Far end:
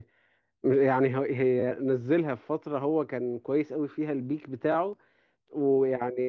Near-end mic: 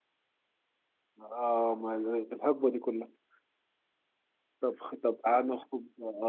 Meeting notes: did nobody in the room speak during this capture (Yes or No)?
No